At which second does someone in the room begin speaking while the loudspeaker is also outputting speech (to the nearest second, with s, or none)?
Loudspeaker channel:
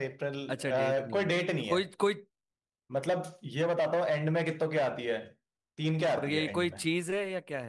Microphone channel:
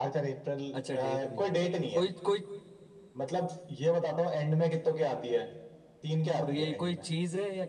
none